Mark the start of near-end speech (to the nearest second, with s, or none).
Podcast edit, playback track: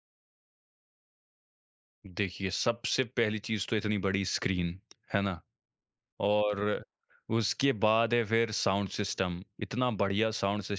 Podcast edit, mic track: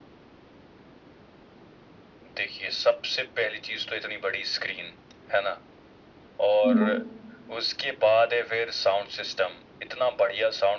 7 s